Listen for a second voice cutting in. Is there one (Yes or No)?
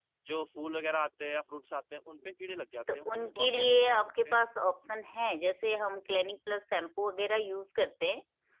Yes